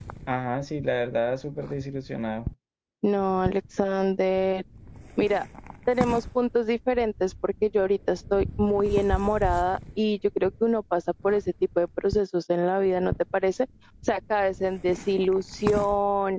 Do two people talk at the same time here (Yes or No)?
No